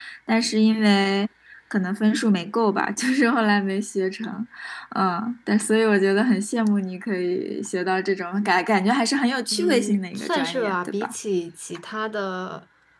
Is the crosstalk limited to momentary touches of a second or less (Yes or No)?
No